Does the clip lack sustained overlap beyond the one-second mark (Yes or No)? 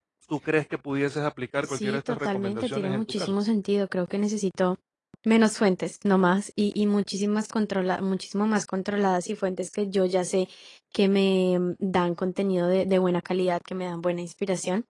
No